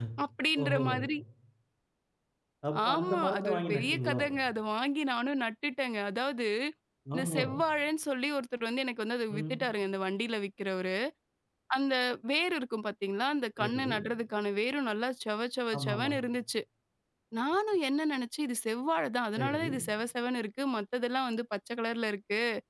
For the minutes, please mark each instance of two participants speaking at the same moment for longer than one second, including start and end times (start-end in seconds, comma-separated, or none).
2.9-4.2